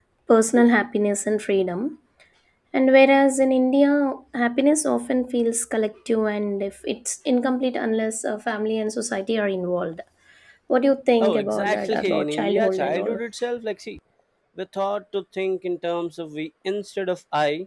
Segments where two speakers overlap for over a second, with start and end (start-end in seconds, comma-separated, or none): 11.2-13.2